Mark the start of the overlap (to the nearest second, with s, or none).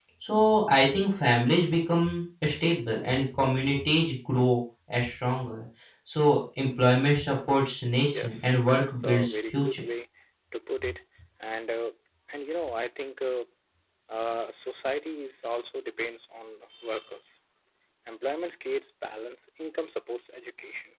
8 s